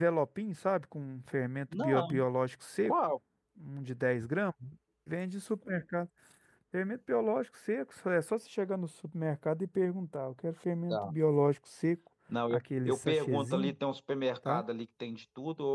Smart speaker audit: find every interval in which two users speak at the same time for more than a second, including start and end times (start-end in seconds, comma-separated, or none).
12.5-13.7